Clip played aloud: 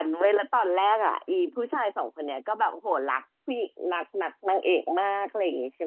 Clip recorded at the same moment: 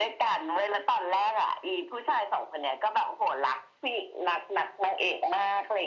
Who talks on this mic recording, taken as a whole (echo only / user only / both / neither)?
echo only